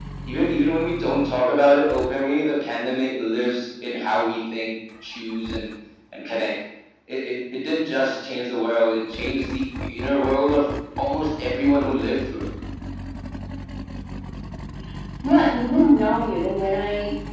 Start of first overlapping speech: none

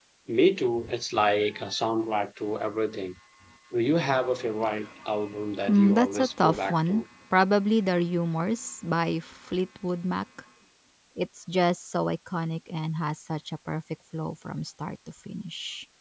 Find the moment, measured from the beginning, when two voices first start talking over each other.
6 s

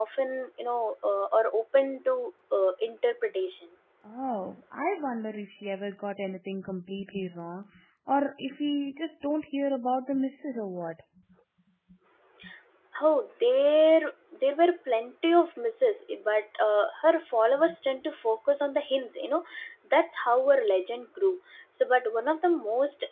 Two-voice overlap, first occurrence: none

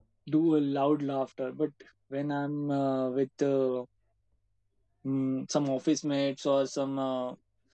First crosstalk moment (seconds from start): none

